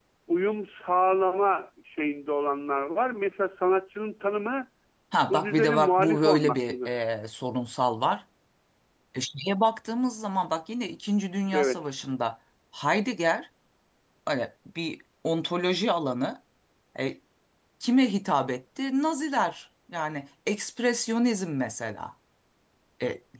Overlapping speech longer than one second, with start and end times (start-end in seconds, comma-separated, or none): 5.3-6.8